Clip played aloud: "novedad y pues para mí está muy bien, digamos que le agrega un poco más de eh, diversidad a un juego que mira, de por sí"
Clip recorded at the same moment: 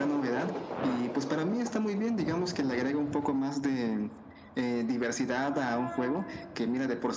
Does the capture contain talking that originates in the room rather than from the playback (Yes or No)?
No